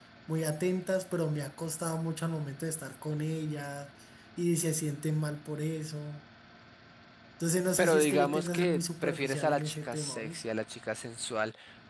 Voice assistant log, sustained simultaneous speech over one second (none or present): present